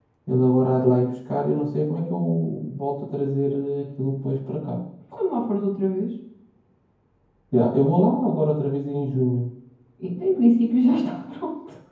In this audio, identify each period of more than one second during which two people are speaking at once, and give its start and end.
none

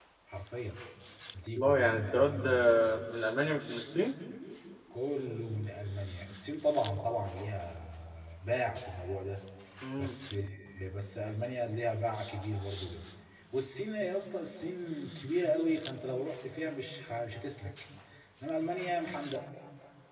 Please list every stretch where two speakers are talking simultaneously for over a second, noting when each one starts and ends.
1.6-3.0

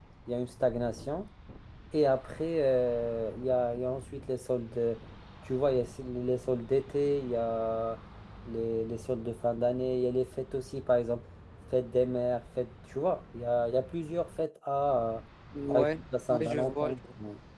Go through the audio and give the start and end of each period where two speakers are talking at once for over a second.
15.7-17.0

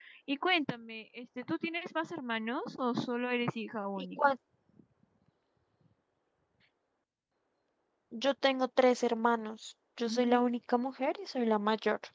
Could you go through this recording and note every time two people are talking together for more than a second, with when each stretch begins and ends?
none

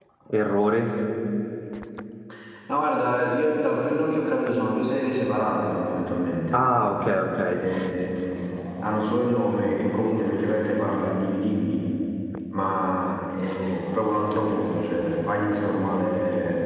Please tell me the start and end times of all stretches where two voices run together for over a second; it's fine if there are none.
none

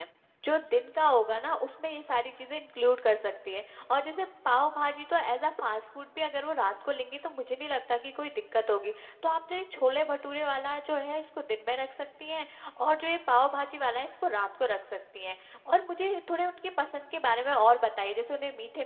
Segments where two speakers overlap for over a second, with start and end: none

